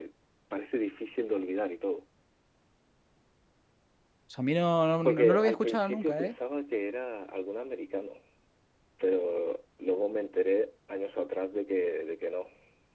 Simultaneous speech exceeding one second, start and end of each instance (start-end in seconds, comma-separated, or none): 5.0-6.3